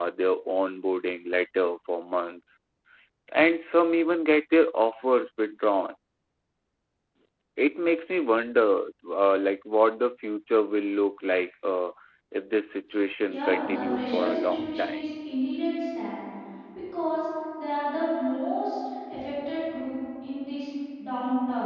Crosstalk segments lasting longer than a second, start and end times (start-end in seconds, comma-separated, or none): 13.3-15.0